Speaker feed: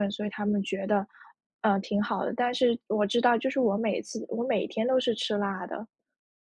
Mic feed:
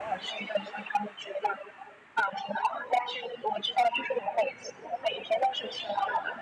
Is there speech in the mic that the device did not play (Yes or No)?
No